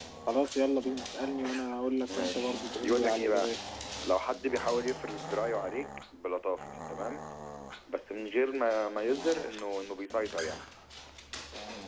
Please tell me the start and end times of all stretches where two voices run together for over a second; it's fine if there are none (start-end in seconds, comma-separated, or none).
2.2-3.5